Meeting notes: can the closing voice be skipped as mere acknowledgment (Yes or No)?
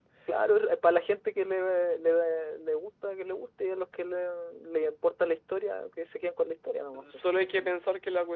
No